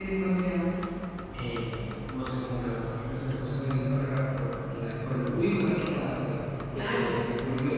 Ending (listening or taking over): listening